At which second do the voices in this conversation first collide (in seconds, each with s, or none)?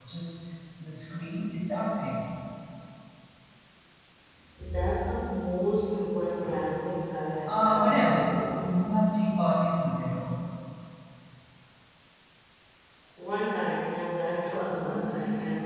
7.5 s